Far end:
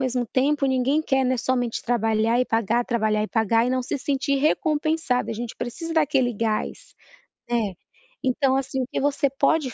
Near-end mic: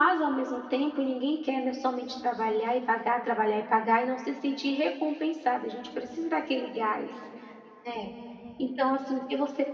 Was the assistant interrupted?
No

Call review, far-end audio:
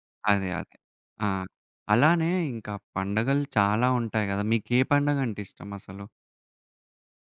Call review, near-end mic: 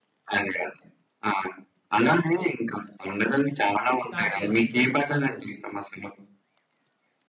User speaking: Yes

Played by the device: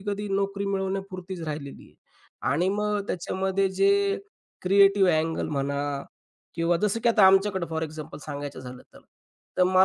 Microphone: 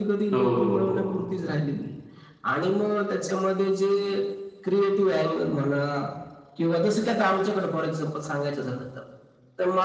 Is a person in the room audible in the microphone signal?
Yes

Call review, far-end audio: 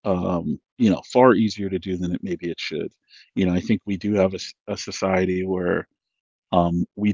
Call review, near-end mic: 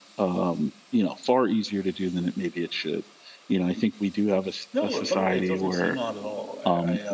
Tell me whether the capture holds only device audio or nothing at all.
No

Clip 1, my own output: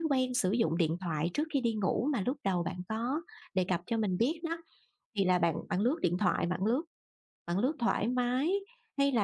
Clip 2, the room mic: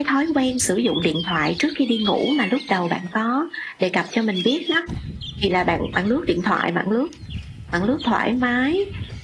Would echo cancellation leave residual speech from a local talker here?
No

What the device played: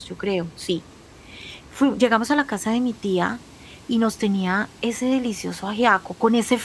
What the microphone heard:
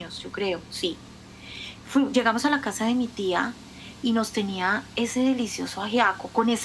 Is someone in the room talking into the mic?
No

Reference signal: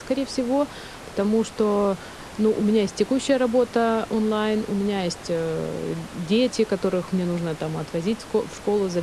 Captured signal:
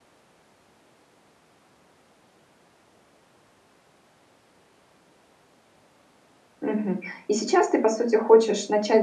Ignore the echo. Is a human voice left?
Yes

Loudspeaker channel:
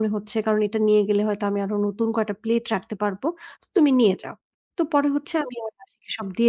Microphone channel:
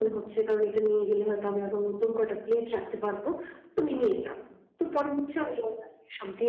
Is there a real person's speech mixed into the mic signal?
No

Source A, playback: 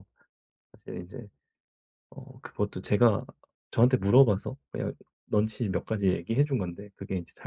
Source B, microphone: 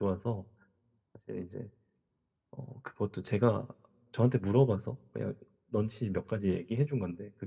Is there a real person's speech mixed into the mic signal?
No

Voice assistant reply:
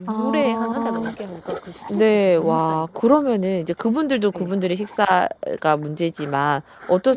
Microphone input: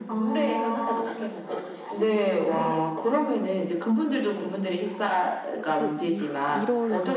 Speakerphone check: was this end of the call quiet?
No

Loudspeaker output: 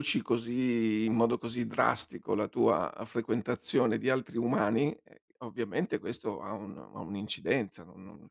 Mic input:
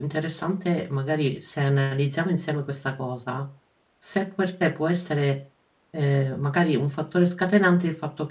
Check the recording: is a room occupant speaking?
Yes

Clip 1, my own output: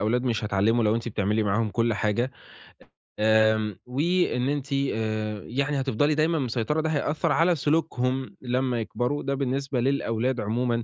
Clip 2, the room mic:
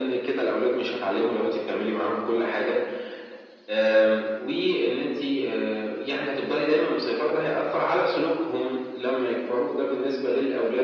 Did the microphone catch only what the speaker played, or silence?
Yes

